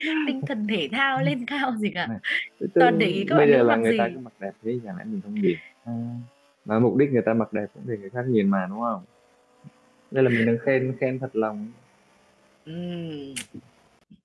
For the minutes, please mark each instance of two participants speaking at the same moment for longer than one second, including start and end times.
2.8-4.2

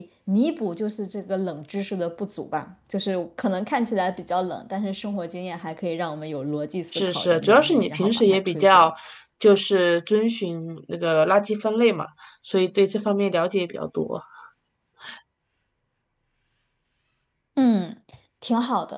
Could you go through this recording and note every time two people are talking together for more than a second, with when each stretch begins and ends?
6.9-8.9

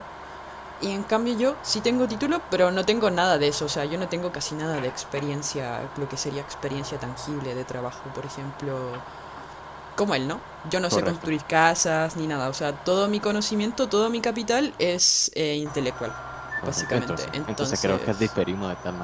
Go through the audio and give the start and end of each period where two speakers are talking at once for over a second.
16.7-18.3

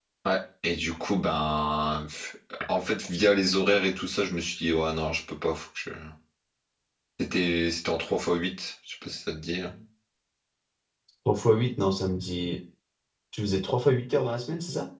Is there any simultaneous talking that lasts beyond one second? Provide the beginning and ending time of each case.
none

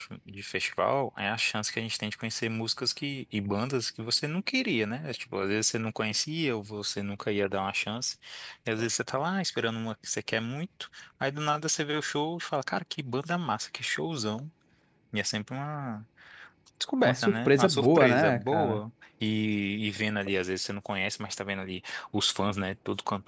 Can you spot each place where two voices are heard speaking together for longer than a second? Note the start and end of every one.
17.0-18.8

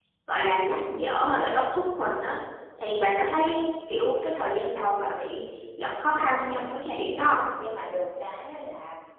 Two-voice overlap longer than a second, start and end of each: 6.0-7.4

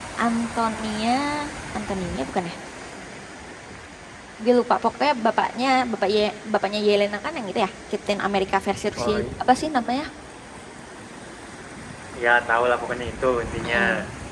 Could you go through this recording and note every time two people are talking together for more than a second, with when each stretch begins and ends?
none

